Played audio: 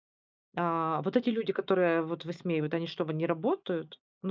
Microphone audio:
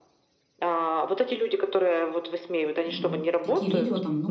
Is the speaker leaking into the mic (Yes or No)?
Yes